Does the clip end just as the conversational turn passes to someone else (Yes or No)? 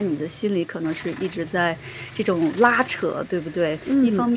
No